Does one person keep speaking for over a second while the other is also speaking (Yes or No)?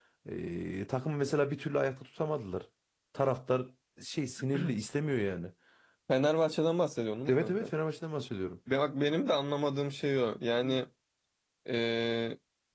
No